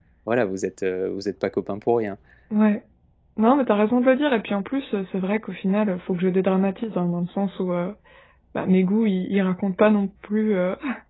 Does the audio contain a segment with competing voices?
No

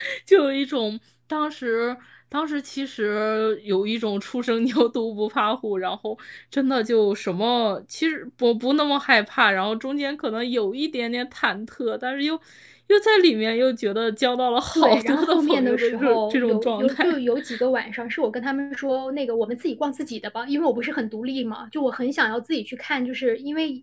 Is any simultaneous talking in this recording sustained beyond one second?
Yes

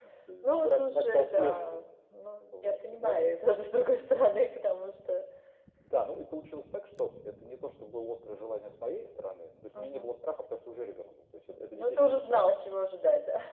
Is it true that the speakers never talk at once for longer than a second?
No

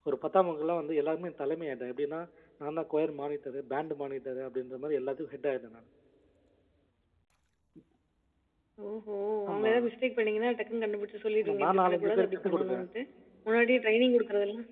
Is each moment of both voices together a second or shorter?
No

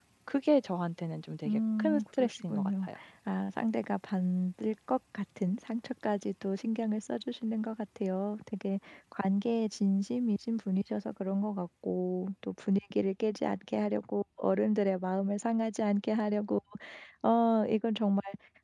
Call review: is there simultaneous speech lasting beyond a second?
Yes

